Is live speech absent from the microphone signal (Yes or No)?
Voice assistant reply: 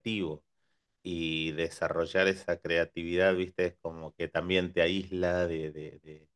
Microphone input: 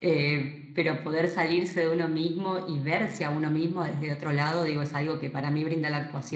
No